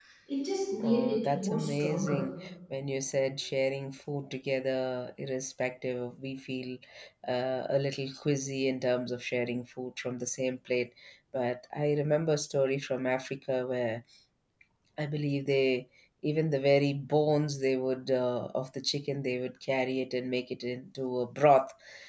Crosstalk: present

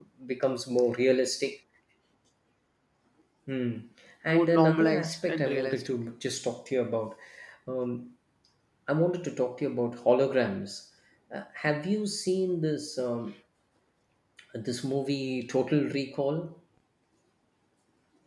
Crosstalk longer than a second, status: present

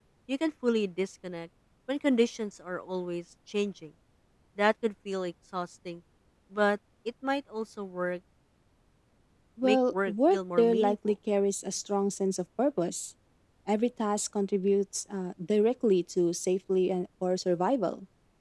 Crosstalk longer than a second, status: present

